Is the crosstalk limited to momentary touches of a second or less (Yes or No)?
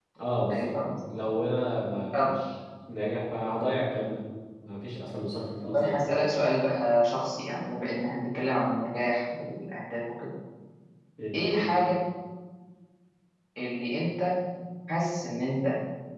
Yes